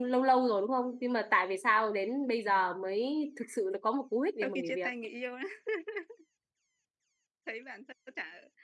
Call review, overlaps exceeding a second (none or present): none